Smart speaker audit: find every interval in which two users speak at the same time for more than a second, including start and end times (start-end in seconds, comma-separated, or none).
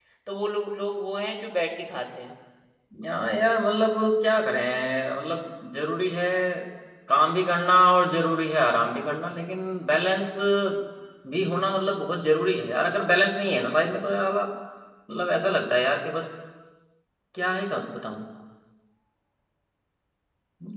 none